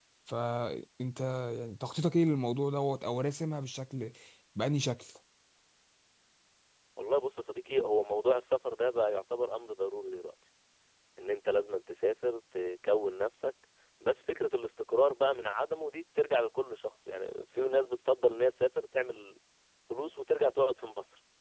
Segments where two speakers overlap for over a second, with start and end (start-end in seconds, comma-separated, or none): none